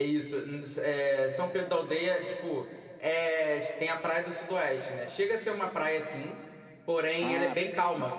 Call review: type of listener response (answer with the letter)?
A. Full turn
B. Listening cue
B